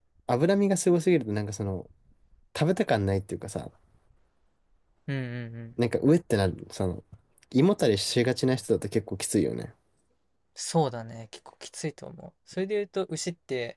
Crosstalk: none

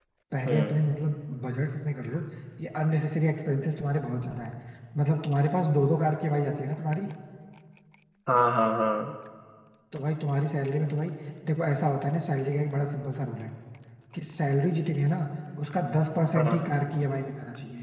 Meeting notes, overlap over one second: none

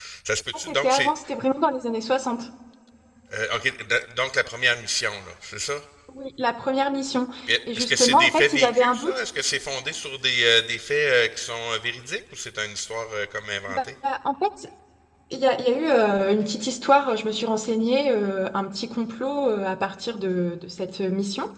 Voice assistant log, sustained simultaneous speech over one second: present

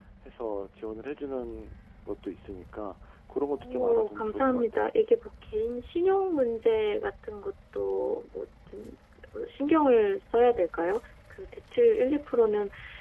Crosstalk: present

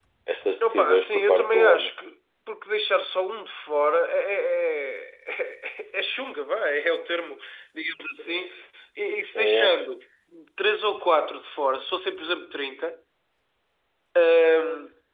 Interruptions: present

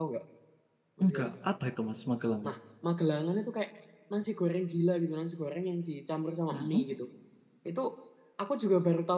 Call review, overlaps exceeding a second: none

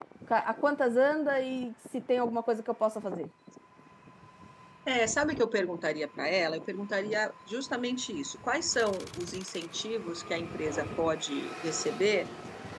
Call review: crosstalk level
none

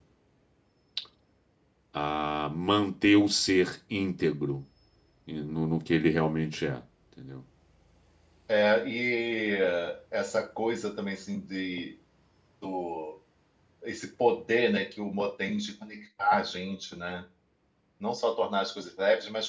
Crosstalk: none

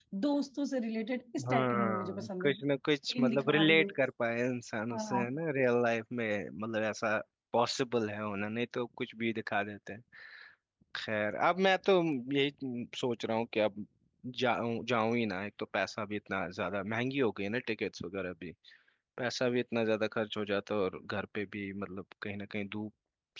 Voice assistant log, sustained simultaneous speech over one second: present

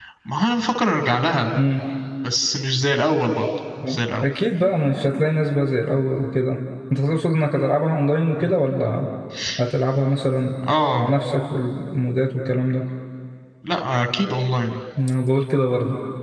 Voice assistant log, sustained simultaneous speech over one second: none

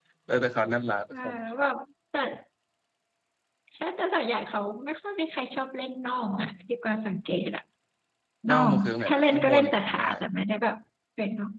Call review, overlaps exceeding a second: present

